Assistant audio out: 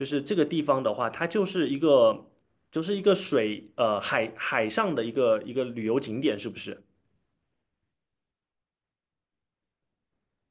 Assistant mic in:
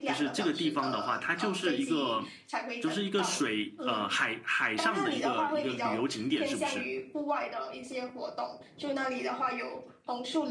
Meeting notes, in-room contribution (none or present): present